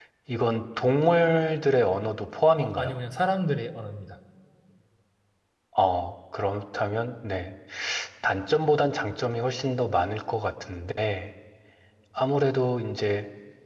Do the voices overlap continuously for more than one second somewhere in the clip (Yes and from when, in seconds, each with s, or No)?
No